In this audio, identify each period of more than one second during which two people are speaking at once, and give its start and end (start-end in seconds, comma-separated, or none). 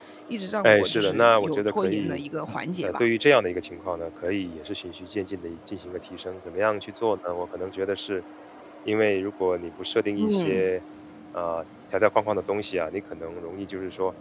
0.6-2.2